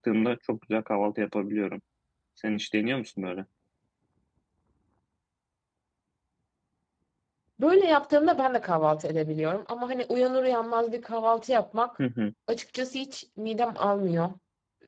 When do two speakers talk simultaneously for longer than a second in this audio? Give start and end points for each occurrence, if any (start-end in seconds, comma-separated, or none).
none